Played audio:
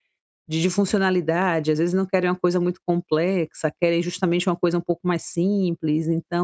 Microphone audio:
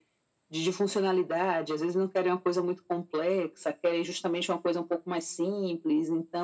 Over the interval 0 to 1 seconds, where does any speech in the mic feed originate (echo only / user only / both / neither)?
echo only